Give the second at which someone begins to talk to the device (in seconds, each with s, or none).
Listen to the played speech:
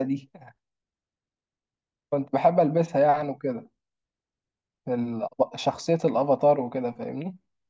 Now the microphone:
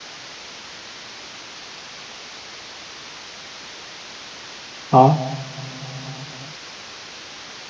4.9 s